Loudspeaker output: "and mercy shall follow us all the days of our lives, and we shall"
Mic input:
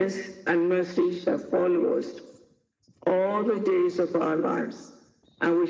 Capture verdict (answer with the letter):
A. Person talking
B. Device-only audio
B